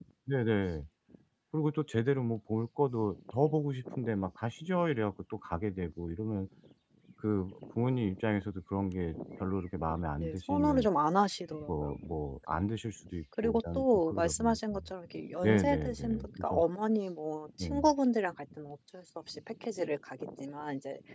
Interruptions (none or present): present